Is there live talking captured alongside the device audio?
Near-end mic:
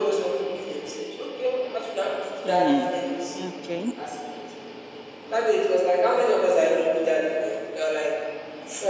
Yes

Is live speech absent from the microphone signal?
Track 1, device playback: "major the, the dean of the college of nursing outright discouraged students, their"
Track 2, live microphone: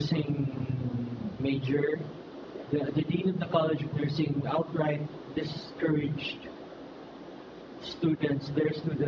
Yes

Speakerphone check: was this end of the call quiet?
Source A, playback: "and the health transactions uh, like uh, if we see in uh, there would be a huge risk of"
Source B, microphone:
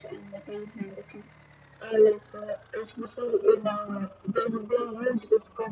Yes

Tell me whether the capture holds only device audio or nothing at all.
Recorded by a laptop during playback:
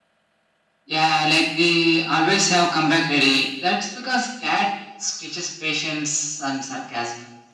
Yes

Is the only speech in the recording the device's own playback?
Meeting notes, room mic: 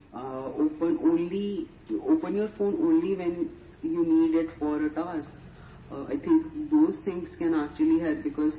Yes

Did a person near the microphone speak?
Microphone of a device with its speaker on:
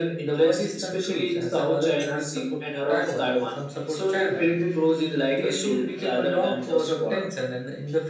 No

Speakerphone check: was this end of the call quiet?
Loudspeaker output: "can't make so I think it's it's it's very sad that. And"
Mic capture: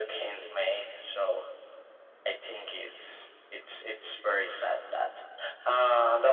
Yes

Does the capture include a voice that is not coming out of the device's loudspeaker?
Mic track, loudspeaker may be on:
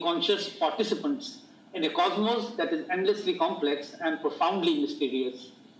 No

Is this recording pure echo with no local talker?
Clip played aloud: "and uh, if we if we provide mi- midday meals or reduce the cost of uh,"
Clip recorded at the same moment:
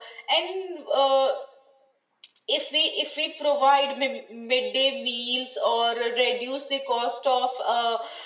Yes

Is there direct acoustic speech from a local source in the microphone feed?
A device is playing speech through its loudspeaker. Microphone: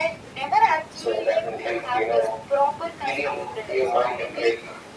No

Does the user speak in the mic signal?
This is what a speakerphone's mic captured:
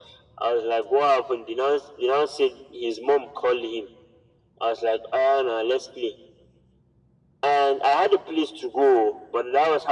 No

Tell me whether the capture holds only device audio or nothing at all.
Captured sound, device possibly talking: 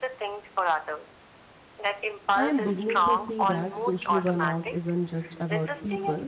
No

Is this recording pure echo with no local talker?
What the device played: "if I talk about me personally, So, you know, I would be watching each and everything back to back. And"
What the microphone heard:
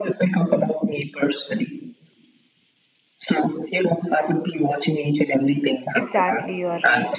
No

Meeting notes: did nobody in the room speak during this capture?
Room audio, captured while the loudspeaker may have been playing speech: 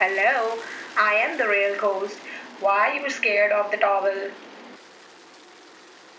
Yes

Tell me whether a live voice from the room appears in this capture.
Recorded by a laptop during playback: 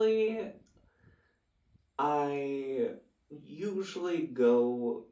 No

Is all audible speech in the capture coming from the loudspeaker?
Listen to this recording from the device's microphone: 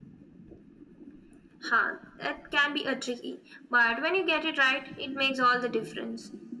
Yes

